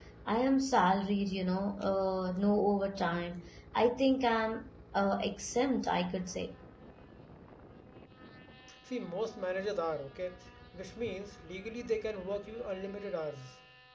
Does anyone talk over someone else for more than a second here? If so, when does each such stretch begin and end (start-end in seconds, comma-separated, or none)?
none